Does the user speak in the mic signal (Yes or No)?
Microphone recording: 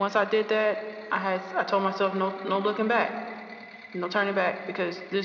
No